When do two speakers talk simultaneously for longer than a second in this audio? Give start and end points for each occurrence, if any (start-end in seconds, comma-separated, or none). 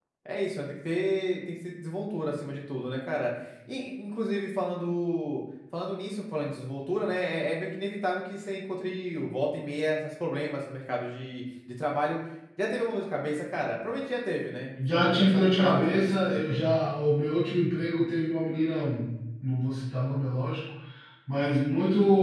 14.8-16.6